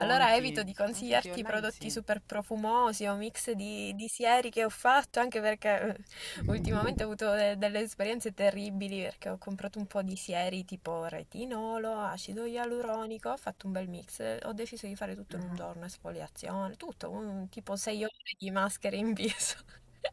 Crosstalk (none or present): present